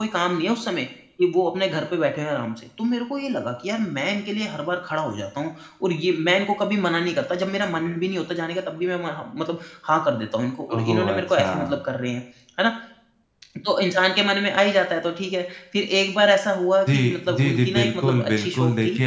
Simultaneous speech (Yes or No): Yes